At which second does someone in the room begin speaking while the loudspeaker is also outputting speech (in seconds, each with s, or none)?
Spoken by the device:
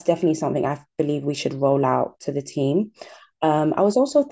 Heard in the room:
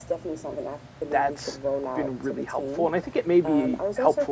1.1 s